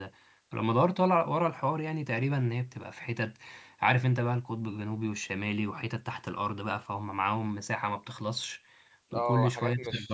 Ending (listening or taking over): taking over